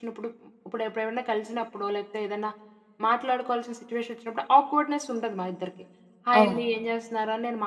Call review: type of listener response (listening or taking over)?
listening